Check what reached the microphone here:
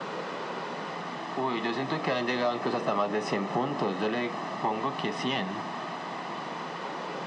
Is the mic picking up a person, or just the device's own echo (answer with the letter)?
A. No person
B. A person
A